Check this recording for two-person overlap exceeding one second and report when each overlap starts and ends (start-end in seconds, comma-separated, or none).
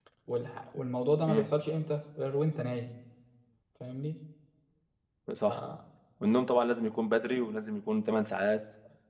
none